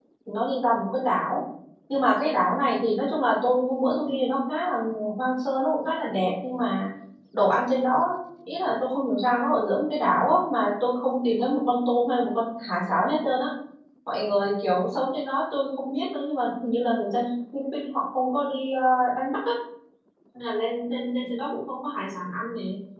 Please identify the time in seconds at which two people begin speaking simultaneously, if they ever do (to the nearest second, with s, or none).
none